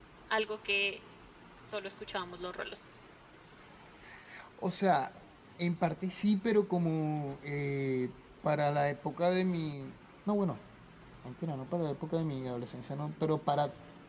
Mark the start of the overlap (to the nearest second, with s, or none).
none